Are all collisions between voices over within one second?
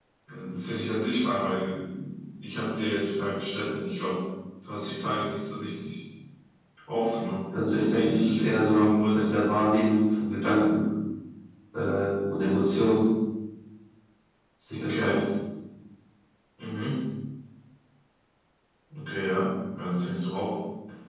No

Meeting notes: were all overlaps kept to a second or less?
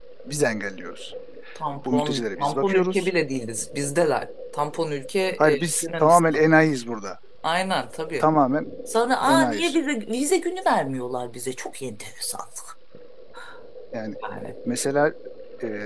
No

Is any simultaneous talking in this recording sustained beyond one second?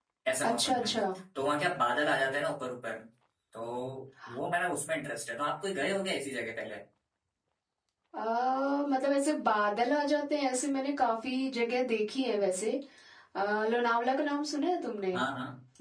No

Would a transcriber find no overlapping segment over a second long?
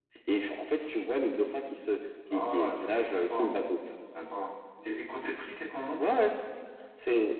No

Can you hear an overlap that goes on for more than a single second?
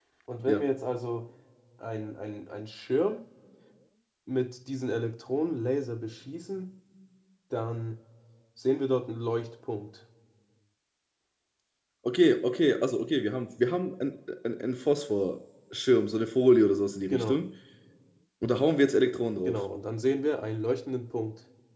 No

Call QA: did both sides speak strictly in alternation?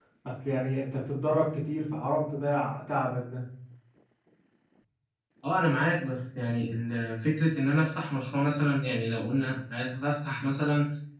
Yes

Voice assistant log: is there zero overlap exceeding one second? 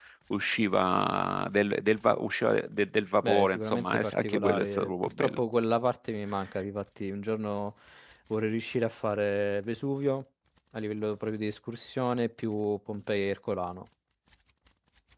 No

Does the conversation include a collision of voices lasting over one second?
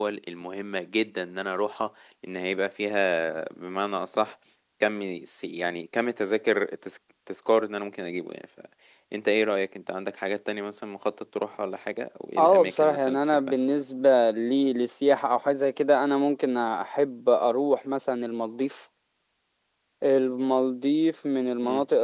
Yes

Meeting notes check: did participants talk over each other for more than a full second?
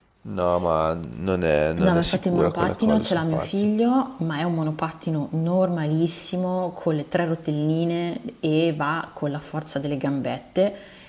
Yes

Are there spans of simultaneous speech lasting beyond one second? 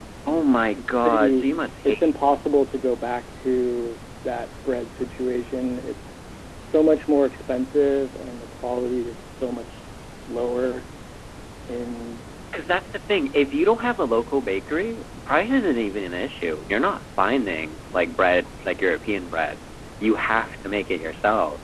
No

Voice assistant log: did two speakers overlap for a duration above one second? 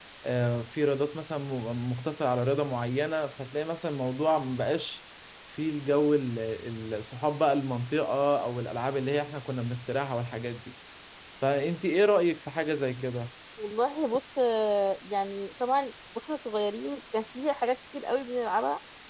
No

